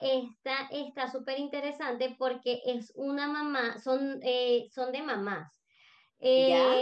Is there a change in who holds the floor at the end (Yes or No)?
No